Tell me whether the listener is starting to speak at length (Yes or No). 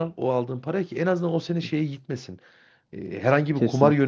No